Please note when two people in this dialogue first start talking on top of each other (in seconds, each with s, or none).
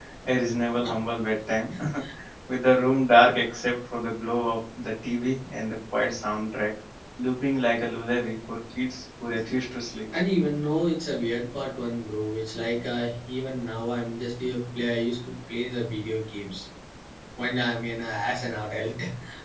none